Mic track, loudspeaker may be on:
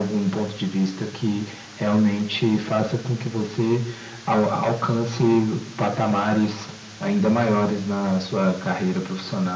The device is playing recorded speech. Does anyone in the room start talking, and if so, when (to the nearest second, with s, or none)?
none